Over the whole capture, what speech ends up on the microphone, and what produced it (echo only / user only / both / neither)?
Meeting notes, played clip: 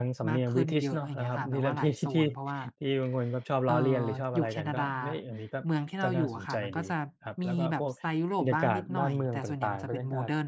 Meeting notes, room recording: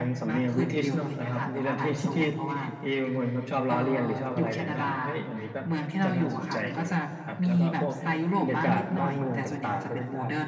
echo only